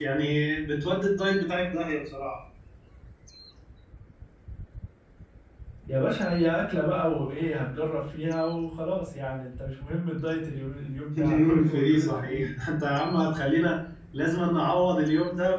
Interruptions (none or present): present